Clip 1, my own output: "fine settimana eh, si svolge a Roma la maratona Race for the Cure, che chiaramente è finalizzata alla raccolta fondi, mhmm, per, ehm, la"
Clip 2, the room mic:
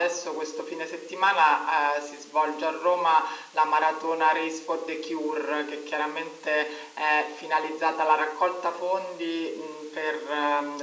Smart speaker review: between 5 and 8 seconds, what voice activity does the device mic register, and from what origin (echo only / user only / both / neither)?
echo only